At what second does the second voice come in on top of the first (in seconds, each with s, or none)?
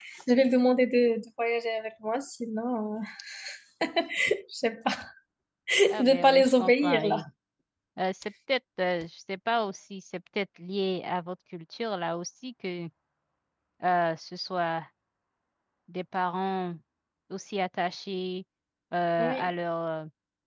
5.9 s